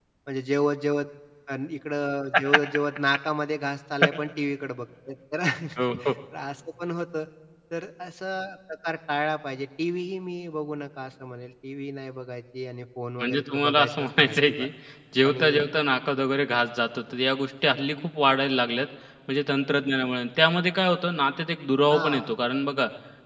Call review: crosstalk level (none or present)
present